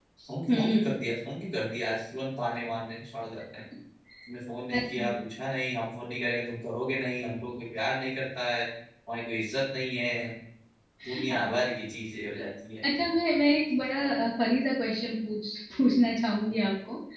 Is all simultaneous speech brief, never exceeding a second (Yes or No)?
Yes